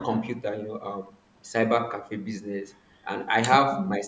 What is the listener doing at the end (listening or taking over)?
listening